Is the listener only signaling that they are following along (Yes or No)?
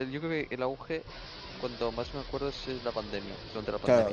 No